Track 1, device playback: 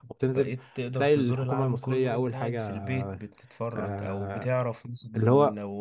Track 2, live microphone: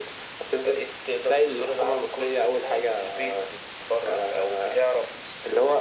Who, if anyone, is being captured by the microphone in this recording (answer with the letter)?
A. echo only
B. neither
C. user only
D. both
A